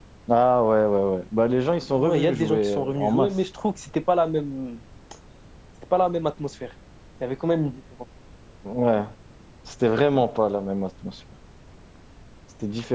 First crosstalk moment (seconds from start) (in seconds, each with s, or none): 1.9 s